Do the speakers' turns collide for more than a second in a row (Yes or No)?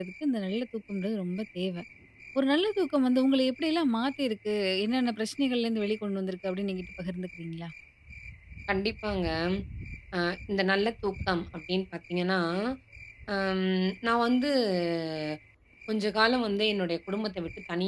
No